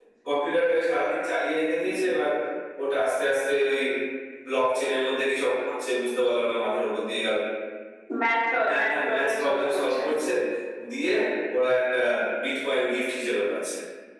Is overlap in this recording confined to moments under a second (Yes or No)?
No